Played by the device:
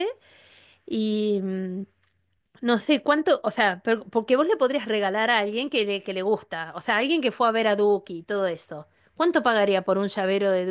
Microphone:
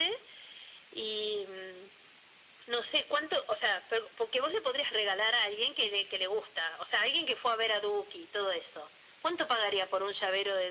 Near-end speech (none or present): none